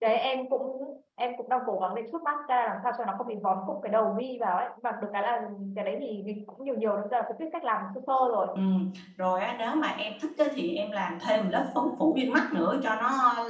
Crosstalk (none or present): none